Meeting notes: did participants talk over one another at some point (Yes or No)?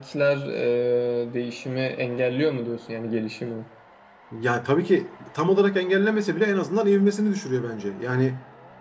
No